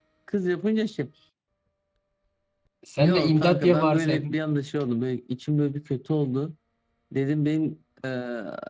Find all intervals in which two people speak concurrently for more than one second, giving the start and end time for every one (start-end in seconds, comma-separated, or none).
3.0-4.4